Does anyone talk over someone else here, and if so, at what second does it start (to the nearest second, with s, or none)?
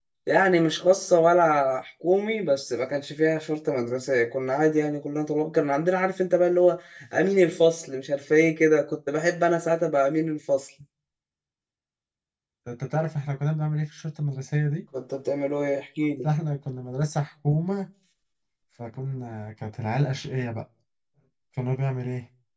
none